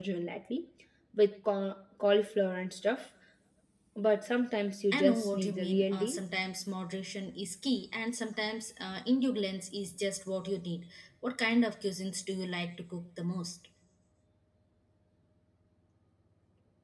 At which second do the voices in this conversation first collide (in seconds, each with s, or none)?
4.9 s